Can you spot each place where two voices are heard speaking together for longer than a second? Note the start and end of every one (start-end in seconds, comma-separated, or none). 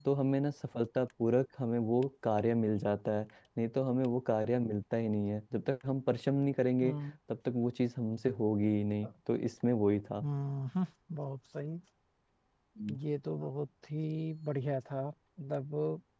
none